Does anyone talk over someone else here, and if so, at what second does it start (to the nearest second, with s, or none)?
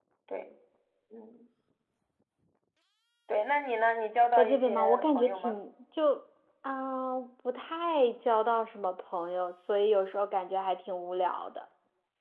4 s